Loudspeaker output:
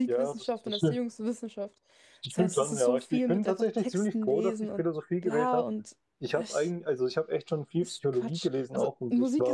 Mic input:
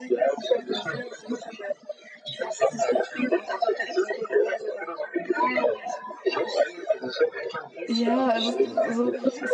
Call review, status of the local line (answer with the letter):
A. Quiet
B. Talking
B